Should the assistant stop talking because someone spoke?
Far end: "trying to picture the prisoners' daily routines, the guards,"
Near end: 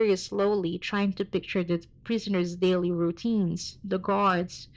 No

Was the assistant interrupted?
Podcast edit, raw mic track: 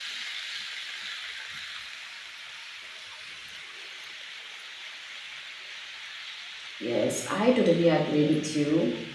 Yes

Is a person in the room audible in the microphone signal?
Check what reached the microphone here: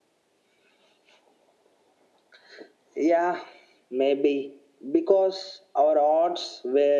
No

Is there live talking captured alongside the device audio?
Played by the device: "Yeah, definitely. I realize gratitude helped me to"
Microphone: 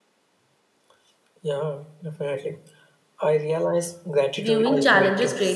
Yes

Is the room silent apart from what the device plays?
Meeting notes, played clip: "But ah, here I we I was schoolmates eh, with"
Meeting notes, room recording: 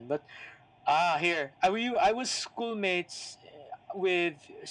Yes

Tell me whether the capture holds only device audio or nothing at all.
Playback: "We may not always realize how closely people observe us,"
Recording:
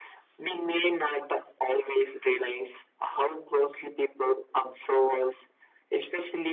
Yes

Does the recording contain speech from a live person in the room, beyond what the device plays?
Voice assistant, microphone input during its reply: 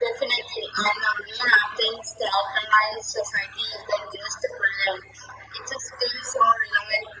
No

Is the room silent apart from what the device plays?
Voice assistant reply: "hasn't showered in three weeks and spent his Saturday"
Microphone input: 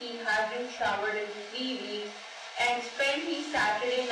Yes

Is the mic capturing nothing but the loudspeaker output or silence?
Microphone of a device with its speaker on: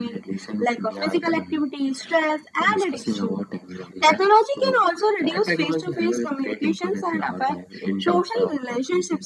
Yes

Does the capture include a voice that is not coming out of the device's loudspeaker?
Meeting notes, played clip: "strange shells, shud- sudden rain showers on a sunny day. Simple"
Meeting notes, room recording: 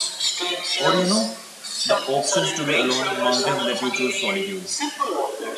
Yes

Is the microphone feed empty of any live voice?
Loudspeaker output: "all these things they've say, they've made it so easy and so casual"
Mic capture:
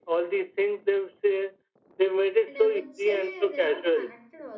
No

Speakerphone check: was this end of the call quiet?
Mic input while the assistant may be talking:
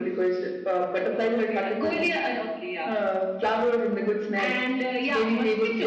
Yes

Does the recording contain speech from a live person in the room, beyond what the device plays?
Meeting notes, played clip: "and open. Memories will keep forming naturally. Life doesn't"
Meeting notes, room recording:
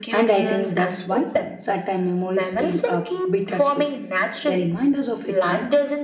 Yes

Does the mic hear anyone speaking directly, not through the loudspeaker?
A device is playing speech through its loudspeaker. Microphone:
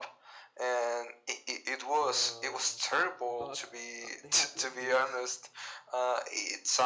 Yes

